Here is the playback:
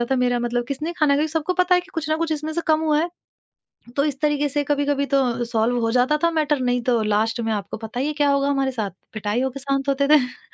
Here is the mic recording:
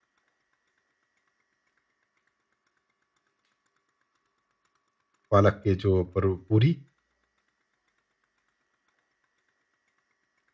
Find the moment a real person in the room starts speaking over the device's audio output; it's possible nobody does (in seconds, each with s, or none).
5.3 s